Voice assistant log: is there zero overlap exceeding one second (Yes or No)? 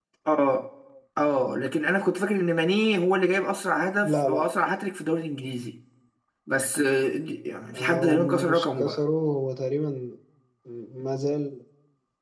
No